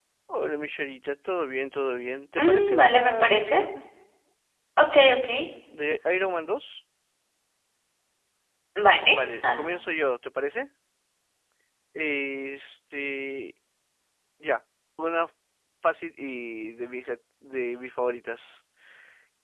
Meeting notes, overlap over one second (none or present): present